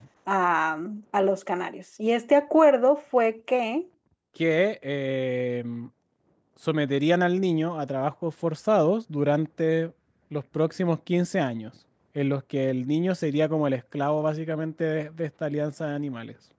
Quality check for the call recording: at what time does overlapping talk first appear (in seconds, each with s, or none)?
none